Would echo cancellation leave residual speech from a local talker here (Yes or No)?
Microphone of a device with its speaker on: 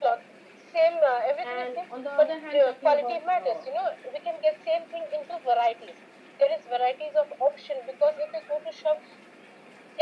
Yes